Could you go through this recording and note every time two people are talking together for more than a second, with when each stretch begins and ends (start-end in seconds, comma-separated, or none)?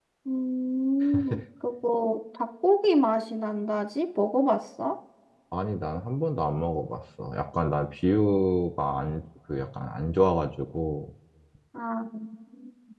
none